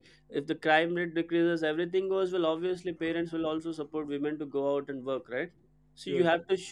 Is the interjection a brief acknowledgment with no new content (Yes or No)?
Yes